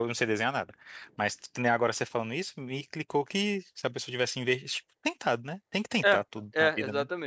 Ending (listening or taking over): taking over